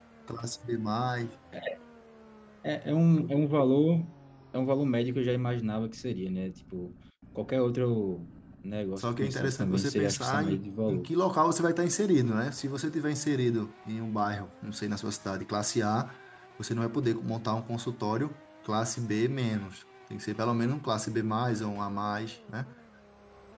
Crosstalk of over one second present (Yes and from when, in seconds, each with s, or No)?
Yes, from 9.0 s